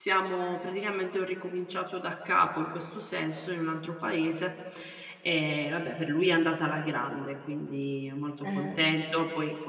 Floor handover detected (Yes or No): No